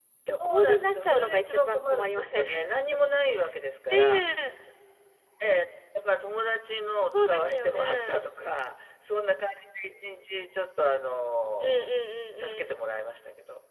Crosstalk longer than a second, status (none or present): present